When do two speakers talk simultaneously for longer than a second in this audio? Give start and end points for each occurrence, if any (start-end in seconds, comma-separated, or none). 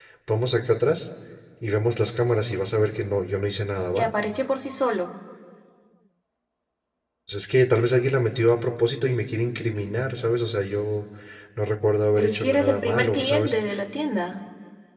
12.2-13.5